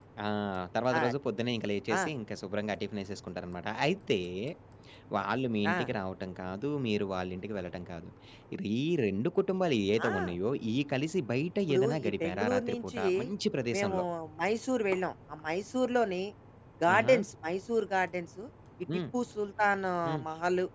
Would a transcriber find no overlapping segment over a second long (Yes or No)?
No